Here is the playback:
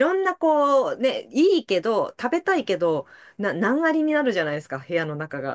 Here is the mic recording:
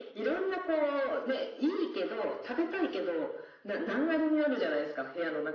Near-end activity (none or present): none